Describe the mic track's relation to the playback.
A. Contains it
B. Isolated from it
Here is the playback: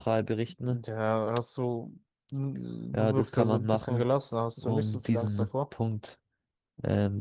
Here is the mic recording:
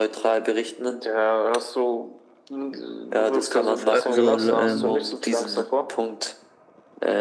A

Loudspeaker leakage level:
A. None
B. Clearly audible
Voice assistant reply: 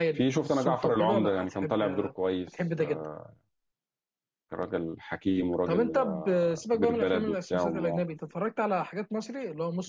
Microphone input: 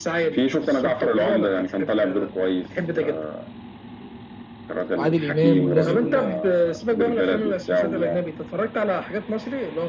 B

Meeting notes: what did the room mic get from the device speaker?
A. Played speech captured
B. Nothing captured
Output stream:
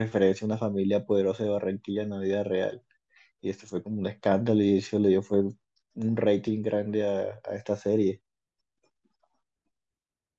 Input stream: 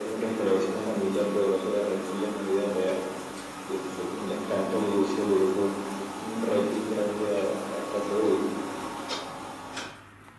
A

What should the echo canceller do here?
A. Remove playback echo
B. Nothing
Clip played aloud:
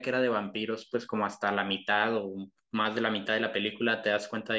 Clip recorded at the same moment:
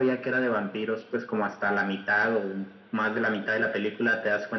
A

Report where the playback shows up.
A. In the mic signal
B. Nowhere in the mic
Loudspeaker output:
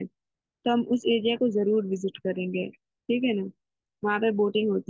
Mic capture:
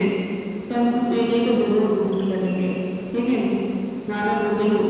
A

